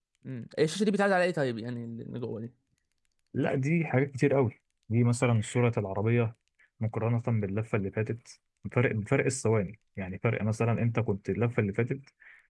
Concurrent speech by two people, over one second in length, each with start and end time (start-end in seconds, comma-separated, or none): none